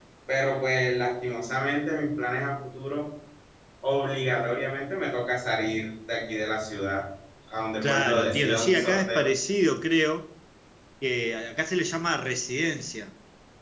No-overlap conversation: No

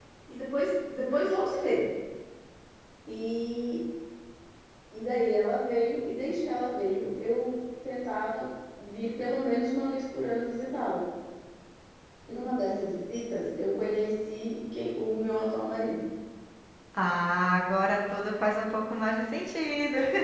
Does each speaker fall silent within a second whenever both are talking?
Yes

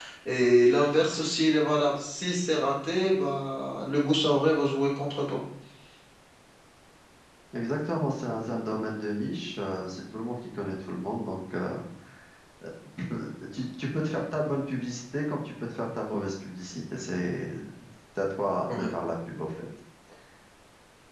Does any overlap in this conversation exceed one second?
No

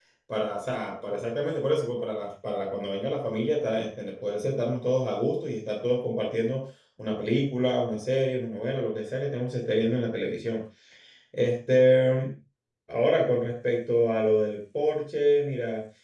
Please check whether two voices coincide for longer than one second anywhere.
No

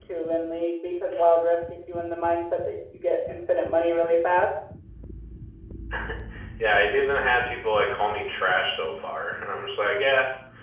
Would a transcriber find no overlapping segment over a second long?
Yes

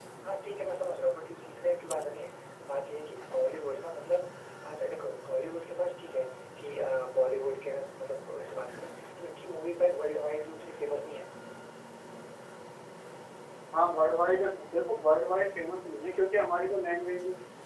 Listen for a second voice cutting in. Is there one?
No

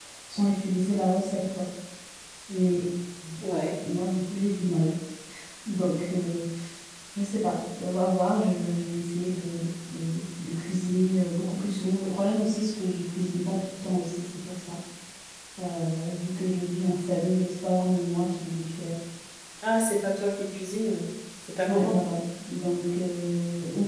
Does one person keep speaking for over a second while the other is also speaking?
No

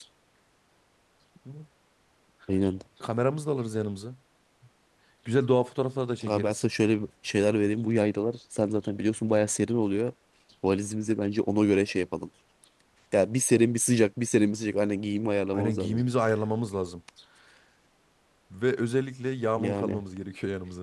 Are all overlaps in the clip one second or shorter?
Yes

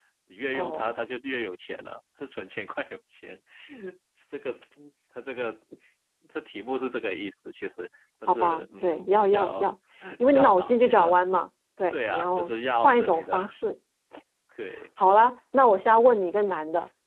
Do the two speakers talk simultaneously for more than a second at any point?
Yes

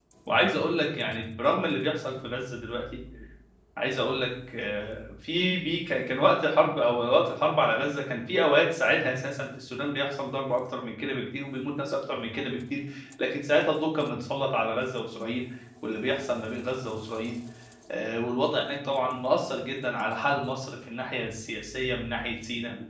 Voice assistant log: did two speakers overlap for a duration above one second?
No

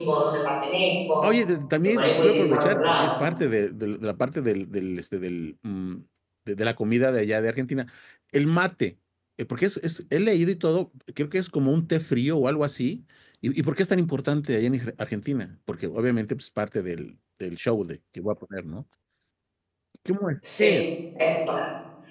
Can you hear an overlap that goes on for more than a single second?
Yes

